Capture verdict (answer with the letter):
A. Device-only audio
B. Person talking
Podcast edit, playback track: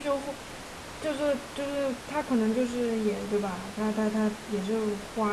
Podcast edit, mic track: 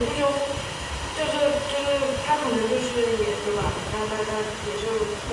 A